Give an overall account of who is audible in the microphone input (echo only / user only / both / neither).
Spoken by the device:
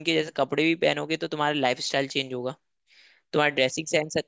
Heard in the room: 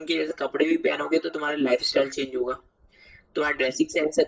echo only